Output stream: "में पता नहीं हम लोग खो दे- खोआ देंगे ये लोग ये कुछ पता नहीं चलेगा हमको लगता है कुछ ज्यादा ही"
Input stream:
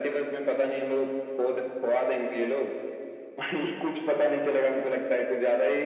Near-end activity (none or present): none